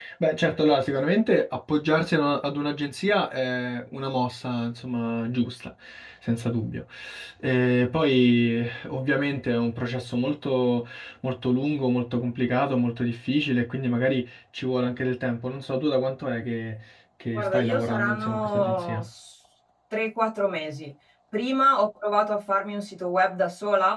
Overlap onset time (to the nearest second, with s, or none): 17 s